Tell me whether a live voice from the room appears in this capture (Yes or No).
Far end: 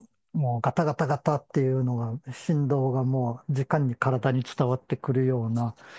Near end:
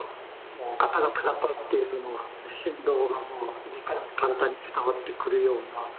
No